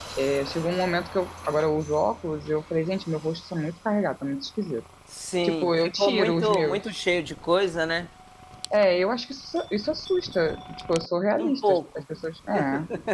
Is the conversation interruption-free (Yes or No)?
No